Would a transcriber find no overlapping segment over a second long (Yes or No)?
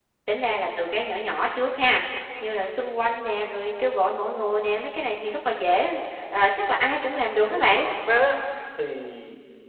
Yes